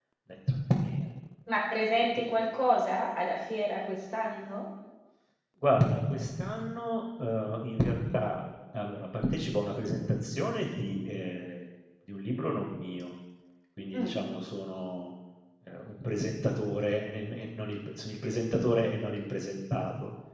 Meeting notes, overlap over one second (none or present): none